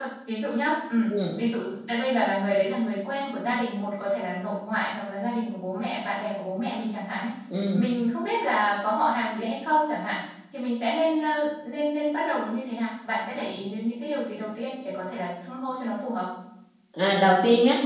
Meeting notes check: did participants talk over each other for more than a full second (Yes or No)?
No